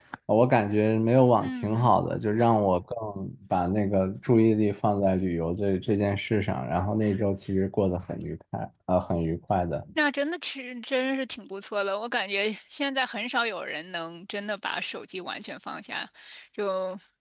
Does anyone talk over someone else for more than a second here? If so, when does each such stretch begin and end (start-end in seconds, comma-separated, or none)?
none